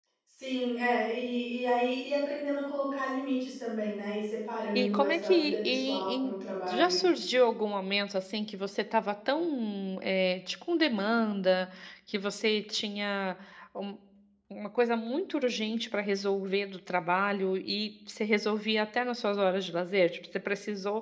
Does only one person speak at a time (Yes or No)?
No